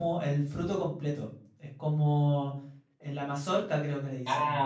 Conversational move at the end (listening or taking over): taking over